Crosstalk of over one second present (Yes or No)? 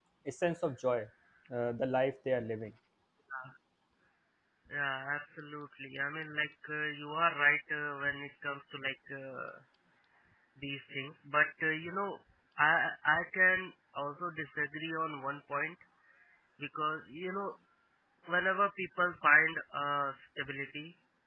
No